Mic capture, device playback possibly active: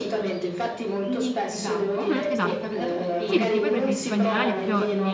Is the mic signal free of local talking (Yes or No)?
No